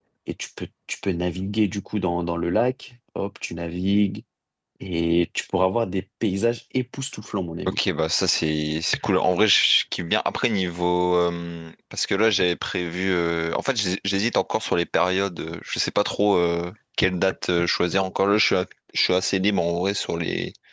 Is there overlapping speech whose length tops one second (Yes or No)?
No